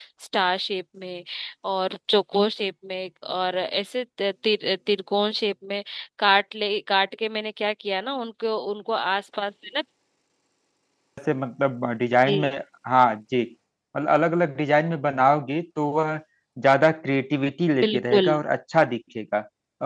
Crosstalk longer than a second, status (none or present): none